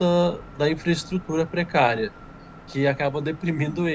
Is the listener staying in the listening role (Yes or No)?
Yes